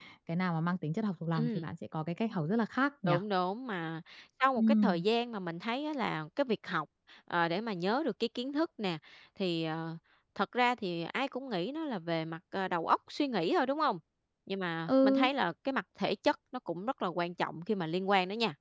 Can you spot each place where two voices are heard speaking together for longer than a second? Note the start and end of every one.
none

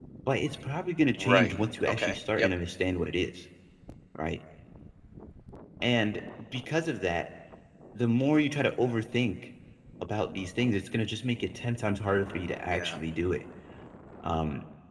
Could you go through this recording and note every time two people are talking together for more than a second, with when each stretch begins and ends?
1.2-2.5

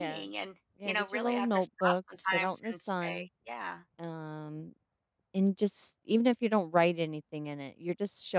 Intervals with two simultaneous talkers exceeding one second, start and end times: 0.8-3.2

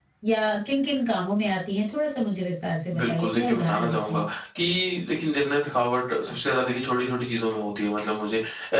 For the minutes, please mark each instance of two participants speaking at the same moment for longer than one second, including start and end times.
3.0-4.2

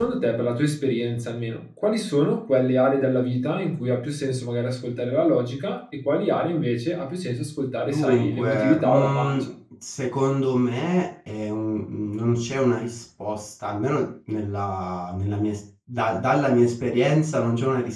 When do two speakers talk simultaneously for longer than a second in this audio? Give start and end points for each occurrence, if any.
7.9-9.4

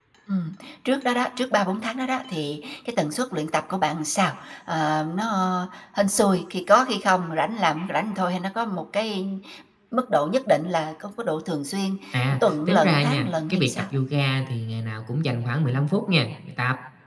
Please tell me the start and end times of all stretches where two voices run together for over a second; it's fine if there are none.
12.5-13.7

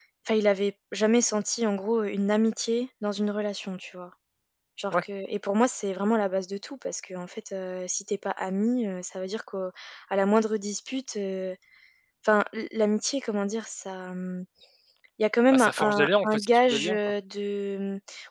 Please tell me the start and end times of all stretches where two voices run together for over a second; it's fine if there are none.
15.5-17.0

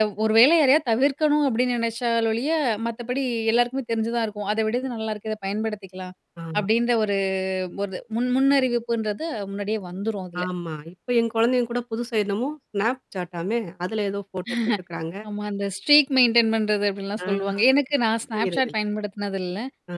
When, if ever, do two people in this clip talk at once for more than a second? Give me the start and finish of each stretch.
none

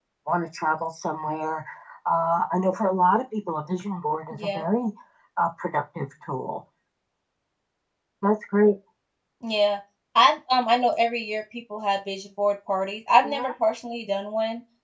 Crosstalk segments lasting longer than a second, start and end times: none

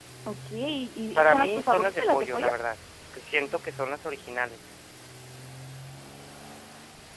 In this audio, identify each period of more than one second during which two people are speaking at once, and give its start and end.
1.2-2.5

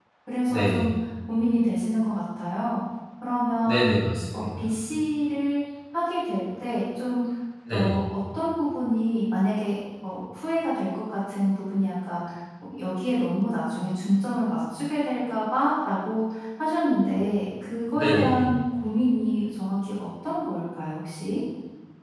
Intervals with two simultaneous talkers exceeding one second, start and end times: none

